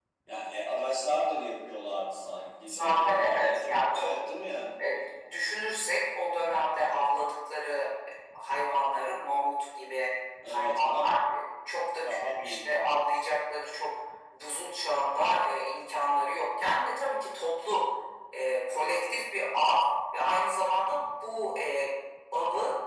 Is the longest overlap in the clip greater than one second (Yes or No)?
Yes